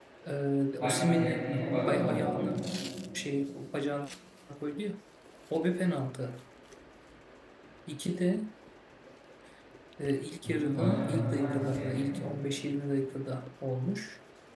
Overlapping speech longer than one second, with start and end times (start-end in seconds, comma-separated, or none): 0.8-2.7, 10.4-12.1